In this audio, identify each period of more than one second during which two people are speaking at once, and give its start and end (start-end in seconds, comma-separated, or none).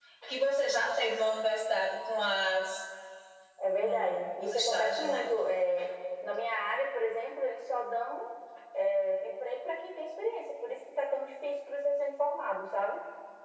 3.8-5.3